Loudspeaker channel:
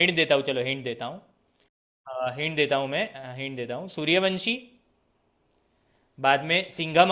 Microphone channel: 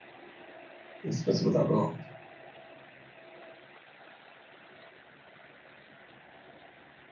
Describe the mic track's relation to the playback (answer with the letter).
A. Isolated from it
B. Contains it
A